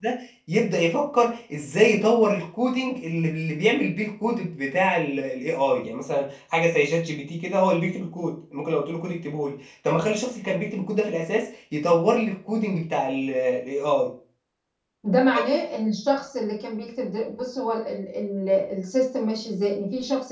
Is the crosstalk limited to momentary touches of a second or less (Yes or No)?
Yes